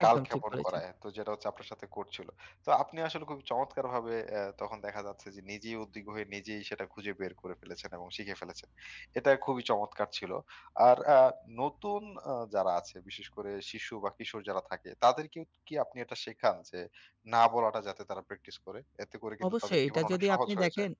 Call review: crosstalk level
present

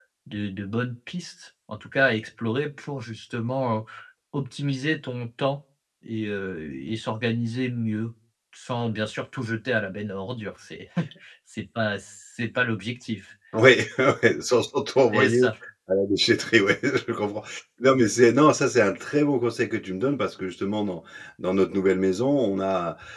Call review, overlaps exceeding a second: none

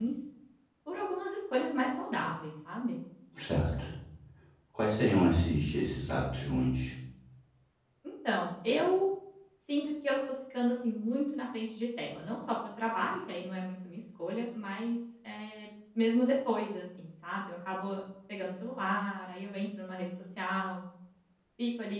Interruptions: none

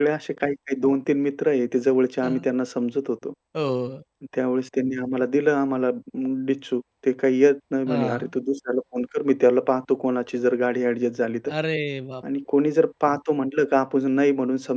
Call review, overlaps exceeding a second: none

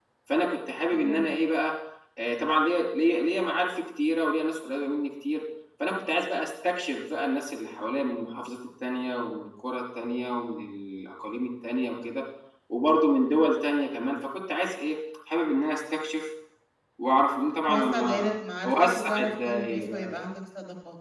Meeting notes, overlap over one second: present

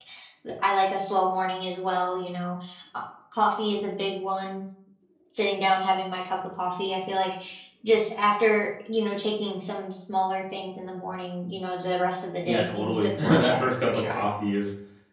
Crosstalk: present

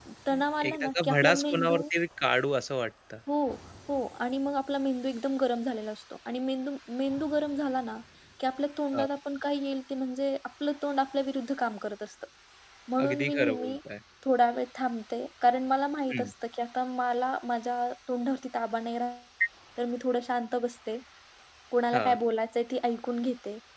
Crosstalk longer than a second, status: present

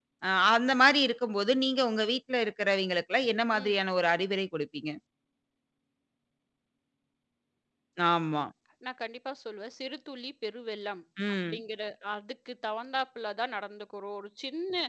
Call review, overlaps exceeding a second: none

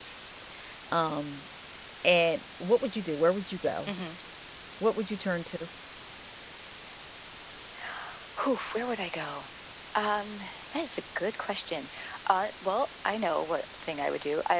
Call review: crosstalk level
none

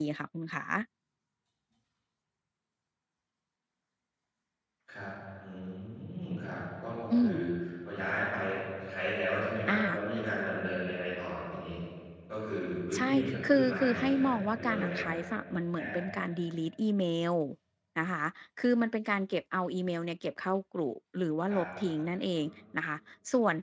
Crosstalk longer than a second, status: present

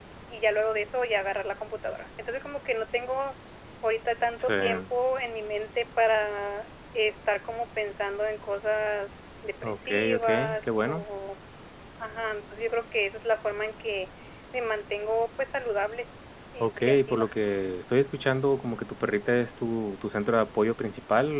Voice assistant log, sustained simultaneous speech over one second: present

